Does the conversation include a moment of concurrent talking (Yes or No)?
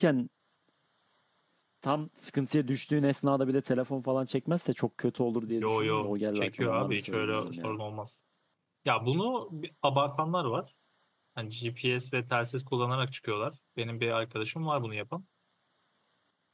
Yes